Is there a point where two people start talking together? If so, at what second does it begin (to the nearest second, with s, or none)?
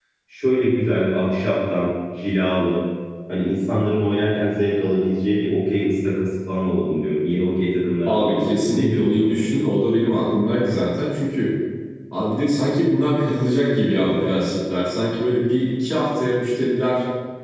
8 s